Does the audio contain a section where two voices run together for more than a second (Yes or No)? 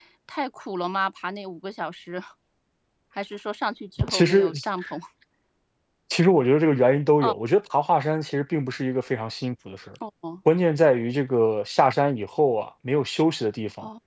No